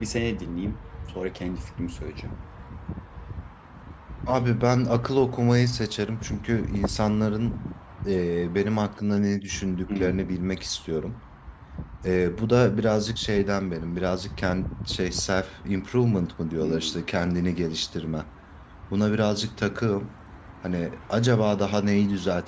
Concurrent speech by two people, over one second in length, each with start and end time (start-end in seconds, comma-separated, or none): none